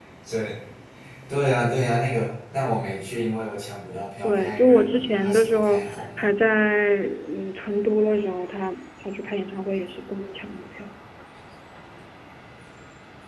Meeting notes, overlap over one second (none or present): present